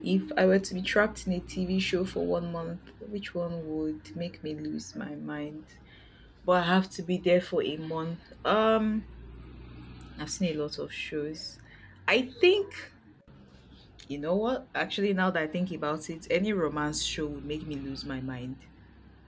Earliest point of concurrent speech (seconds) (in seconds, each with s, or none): none